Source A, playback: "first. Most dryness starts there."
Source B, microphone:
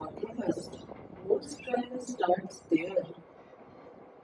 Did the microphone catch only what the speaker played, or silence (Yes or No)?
Yes